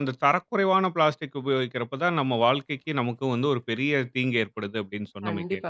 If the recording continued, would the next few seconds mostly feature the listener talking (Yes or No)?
Yes